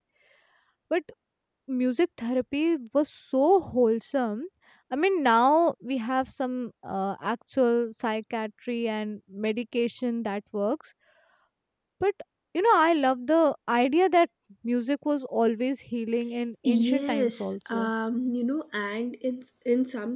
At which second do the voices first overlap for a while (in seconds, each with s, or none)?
16.6 s